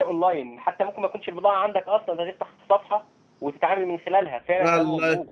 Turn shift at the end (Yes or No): Yes